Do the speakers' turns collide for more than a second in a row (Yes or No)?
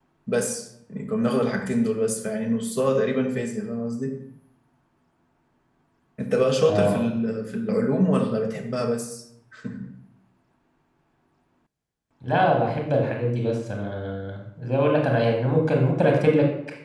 No